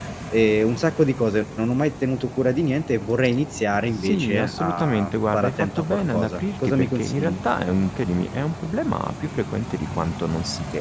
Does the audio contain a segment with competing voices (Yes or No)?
Yes